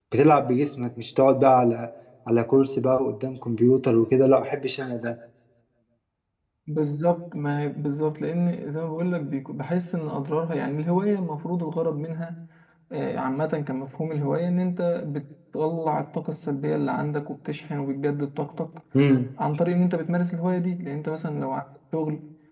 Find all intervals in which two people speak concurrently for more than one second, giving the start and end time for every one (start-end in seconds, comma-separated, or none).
none